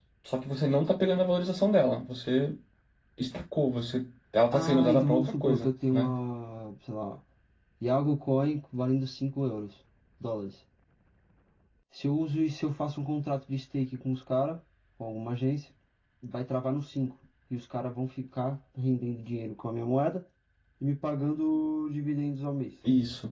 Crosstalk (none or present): present